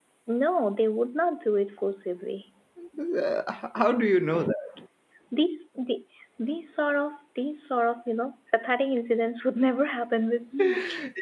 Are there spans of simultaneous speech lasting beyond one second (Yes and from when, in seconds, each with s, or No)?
No